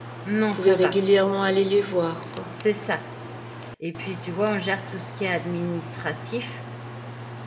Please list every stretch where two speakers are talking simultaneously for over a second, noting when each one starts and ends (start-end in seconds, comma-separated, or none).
none